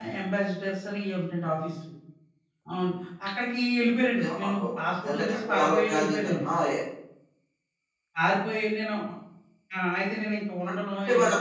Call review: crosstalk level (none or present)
present